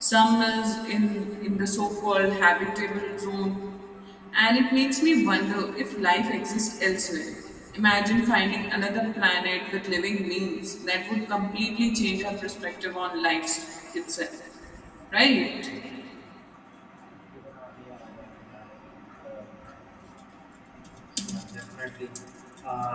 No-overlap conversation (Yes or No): Yes